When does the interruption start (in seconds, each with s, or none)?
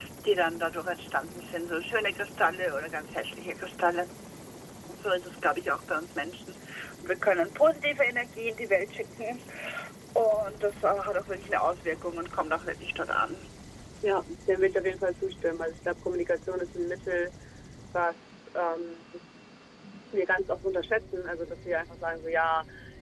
none